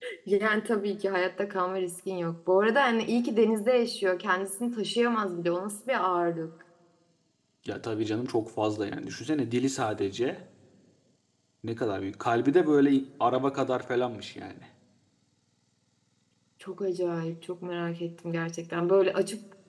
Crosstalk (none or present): none